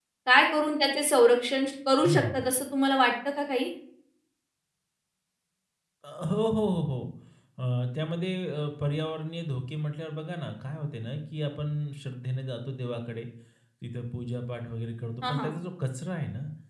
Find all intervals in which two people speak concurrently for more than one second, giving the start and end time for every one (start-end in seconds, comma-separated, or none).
none